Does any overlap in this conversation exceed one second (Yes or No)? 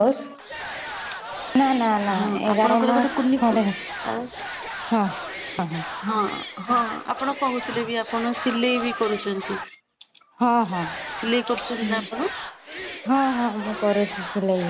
Yes